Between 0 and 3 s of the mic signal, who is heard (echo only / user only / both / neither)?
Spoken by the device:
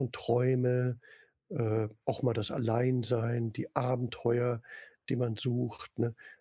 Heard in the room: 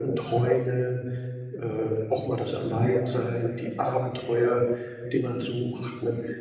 echo only